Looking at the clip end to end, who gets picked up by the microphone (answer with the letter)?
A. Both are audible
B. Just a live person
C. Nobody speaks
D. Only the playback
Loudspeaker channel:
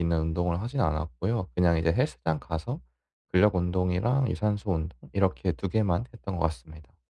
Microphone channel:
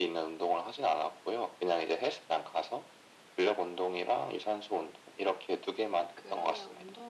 A